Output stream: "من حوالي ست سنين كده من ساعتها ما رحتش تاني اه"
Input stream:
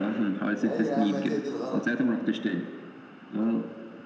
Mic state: both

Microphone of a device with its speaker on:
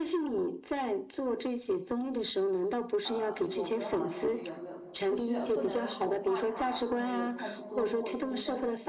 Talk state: both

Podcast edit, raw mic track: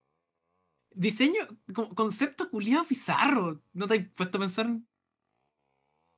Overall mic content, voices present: user only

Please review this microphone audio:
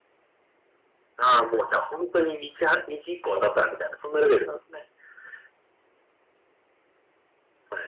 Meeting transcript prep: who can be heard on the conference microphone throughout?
echo only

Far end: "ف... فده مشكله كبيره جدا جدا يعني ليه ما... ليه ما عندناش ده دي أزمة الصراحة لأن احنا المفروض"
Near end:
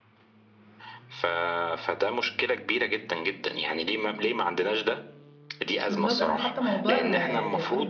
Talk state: both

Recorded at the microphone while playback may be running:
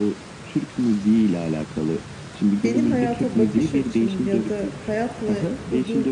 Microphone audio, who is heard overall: both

